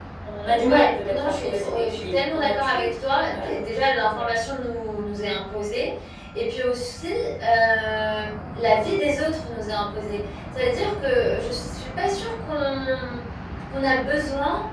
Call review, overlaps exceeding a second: present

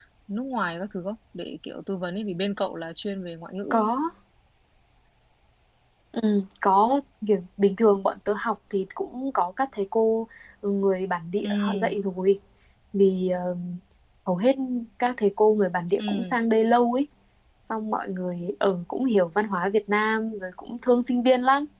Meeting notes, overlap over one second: none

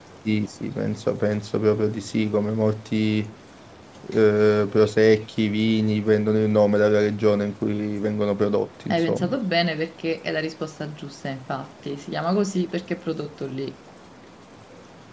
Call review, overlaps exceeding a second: none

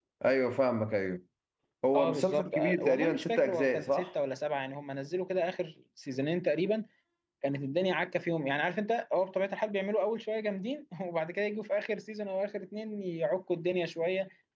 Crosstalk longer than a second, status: present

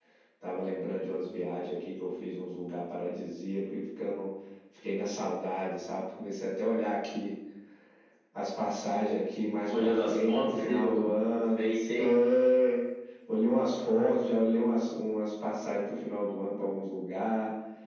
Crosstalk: present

